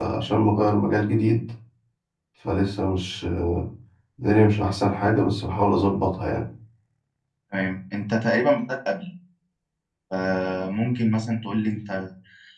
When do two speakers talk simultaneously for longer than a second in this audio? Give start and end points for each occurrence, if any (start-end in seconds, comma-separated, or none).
none